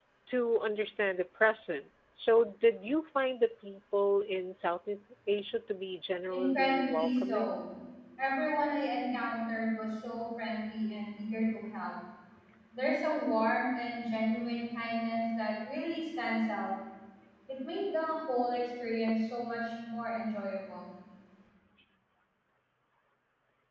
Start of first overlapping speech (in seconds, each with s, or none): 6.3 s